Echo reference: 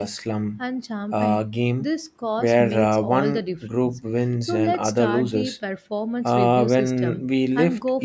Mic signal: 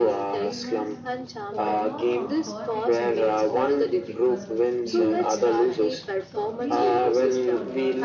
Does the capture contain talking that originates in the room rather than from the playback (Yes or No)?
Yes